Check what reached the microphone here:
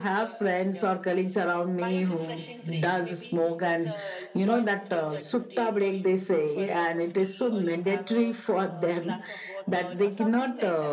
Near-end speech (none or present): present